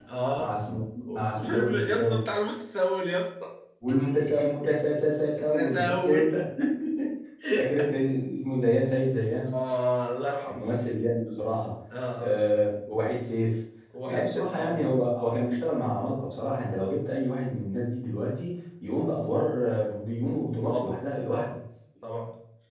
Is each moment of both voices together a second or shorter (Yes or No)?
No